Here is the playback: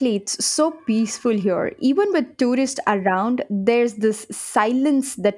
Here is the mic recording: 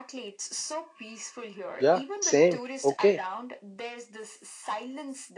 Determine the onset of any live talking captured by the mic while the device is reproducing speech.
1.8 s

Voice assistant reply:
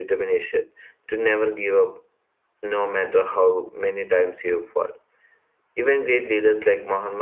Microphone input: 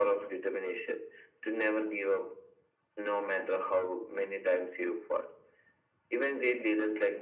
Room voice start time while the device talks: none

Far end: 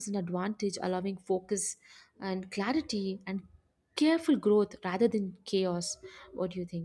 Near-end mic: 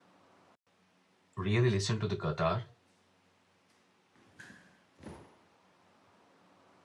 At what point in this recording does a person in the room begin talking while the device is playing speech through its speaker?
1.3 s

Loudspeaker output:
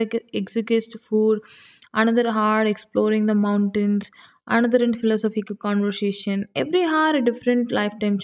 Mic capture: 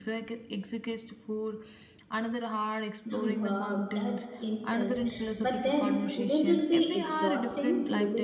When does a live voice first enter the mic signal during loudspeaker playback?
3.1 s

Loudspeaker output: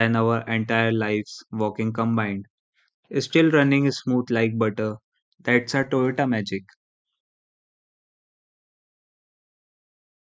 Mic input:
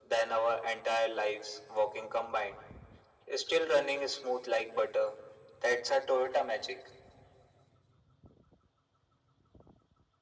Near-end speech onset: none

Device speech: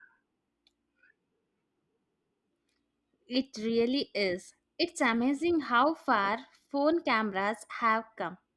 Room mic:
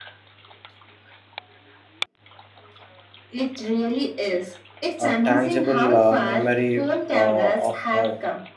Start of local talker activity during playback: 5.0 s

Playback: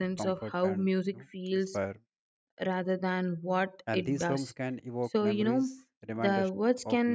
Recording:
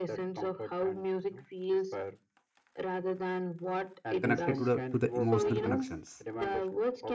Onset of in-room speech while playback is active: 4.2 s

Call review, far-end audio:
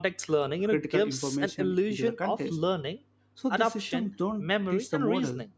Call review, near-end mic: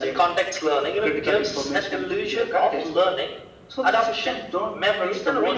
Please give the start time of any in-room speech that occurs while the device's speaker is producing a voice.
none

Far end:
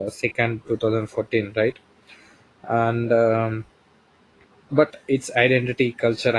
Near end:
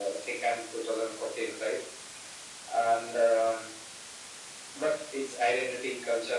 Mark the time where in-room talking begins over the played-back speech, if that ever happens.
none

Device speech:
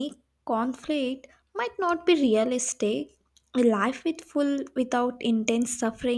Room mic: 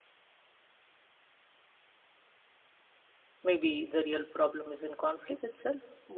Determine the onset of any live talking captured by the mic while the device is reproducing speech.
3.4 s

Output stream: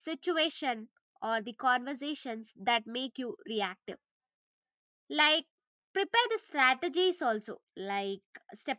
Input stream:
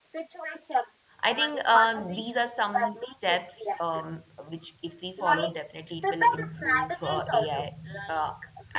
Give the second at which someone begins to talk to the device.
1.2 s

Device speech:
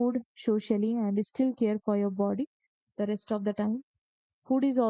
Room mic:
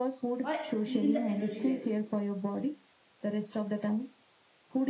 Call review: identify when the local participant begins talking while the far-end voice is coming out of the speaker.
0.4 s

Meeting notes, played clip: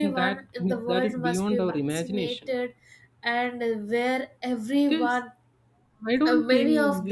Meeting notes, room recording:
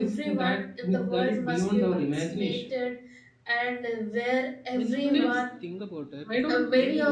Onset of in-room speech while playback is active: 4.7 s

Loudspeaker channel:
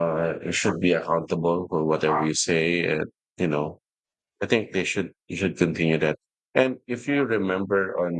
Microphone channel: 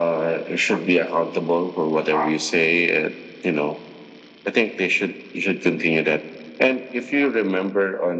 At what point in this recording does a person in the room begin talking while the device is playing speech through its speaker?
none

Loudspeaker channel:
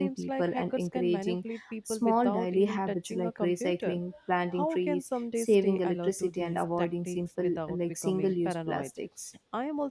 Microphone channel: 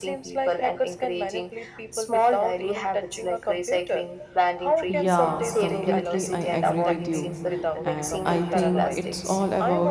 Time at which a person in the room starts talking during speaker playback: 4.9 s

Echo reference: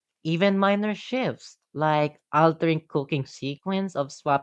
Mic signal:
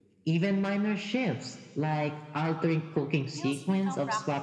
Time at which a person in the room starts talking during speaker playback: 3.3 s

